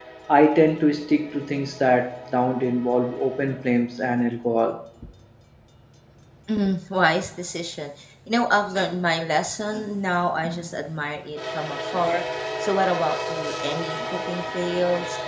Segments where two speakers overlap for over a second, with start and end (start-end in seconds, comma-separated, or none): none